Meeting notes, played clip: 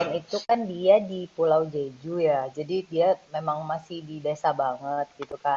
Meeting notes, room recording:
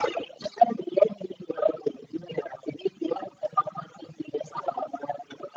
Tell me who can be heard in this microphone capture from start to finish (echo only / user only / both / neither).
echo only